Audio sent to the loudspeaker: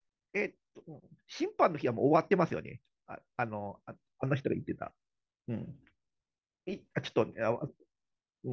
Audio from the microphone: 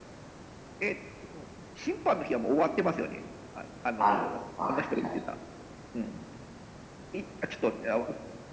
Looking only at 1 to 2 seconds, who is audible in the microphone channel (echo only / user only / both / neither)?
echo only